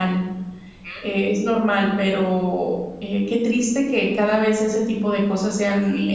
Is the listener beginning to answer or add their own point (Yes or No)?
Yes